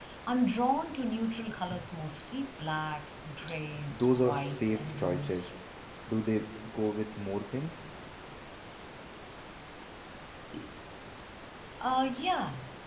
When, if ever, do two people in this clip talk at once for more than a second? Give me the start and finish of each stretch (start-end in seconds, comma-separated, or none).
3.9-5.6